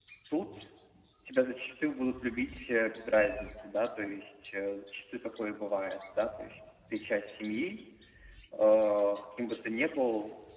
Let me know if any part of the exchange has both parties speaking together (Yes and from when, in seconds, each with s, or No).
No